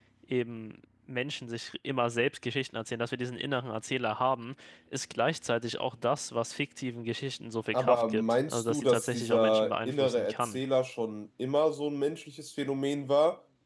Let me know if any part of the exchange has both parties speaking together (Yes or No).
Yes